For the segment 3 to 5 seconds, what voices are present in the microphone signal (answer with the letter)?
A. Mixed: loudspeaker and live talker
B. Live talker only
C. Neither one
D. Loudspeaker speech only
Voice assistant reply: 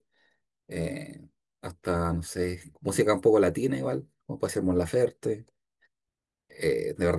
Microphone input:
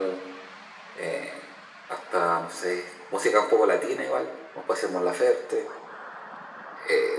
D